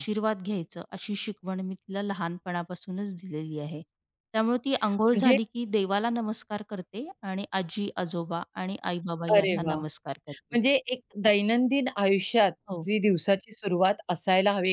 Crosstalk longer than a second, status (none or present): none